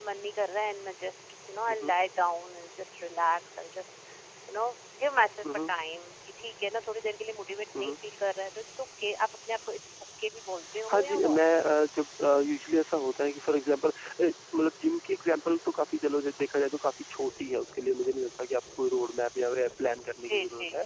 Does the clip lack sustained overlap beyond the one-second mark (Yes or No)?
Yes